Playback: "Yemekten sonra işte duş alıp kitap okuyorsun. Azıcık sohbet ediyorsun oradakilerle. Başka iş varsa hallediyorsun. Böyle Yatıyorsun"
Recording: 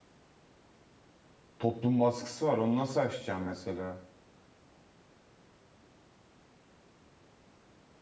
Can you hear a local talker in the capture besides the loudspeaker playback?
Yes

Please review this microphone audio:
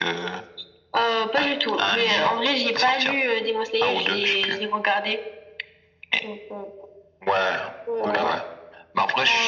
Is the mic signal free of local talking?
No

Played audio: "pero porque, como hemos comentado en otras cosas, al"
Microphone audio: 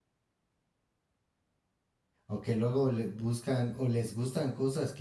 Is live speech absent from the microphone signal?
No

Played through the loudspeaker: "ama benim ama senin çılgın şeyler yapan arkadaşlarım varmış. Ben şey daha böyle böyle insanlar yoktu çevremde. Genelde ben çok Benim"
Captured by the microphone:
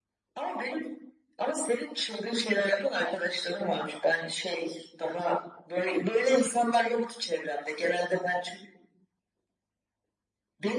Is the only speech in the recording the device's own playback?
Yes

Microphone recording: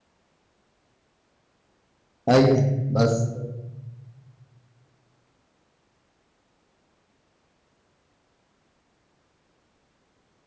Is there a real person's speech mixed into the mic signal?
Yes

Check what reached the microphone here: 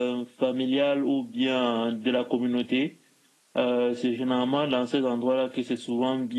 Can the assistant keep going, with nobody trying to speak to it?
Yes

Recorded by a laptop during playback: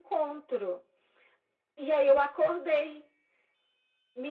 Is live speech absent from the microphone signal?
Yes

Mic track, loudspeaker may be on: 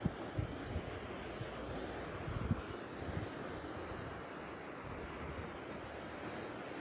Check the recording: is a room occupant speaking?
No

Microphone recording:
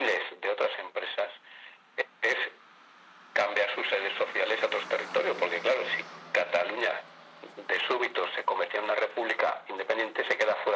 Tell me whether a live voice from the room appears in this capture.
No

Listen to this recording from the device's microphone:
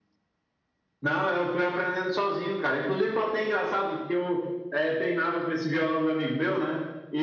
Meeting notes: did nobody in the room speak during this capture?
Yes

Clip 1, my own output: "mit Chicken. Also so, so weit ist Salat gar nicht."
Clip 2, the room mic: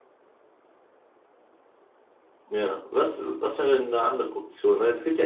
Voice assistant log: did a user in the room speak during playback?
Yes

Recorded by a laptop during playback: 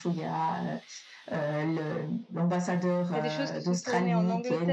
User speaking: Yes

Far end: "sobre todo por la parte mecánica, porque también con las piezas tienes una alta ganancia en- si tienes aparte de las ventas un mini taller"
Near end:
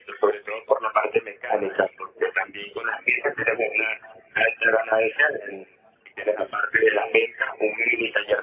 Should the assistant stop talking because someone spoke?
No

